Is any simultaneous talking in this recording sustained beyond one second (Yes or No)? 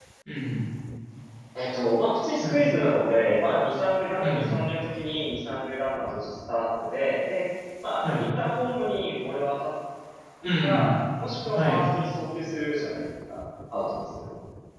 No